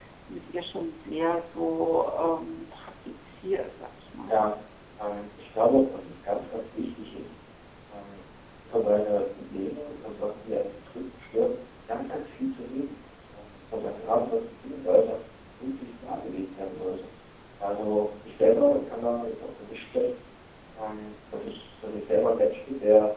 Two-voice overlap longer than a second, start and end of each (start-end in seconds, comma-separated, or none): none